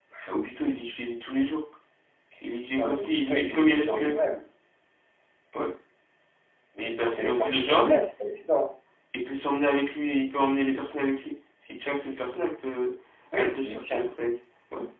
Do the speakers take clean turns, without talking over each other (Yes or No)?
No